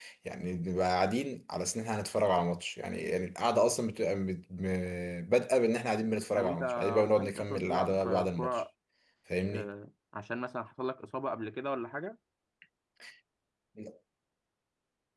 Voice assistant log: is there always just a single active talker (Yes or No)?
No